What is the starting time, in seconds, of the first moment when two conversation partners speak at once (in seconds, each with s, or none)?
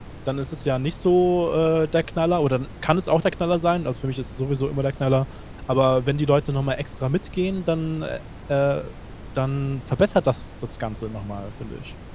none